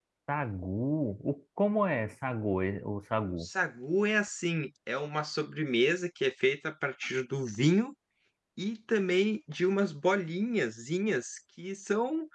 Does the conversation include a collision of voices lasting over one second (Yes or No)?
No